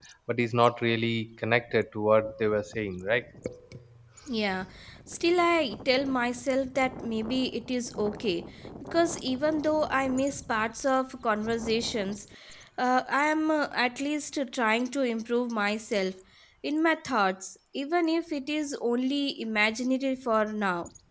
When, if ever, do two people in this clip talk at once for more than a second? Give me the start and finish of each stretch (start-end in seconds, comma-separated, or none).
none